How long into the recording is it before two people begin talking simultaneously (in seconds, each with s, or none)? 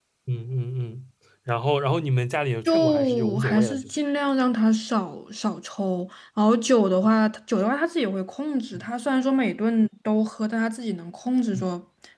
2.7 s